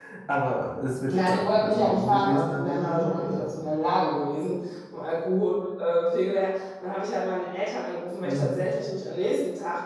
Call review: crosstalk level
present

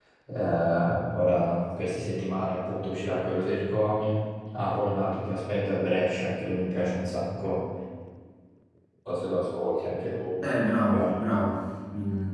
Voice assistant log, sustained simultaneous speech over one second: none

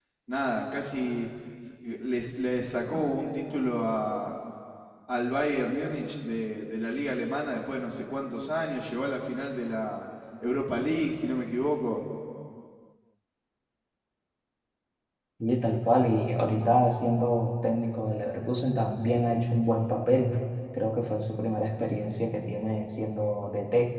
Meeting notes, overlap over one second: none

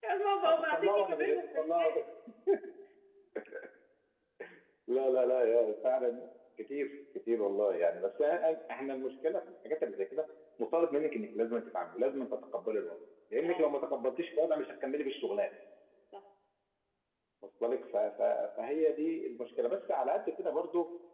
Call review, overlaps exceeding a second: present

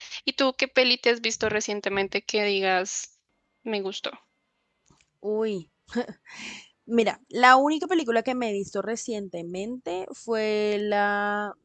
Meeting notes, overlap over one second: none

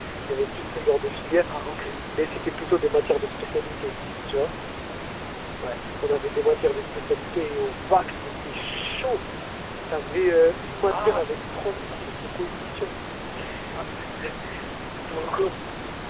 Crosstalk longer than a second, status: none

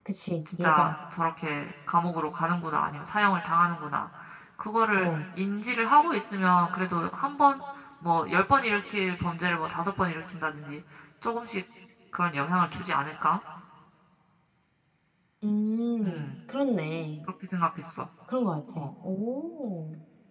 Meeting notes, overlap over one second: none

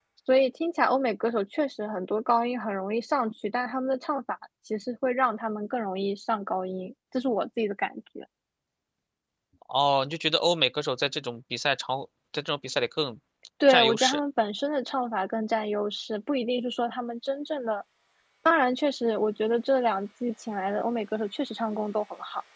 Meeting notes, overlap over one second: none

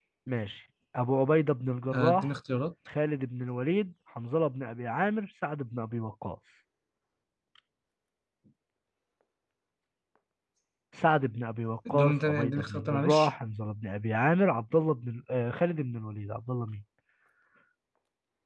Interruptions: present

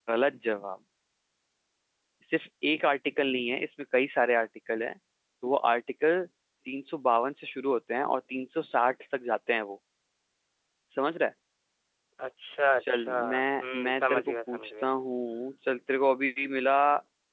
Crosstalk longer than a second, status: present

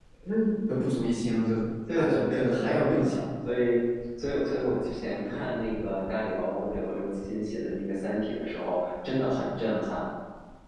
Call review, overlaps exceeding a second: present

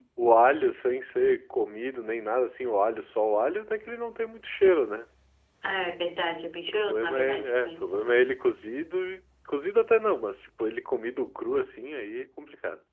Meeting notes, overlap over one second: present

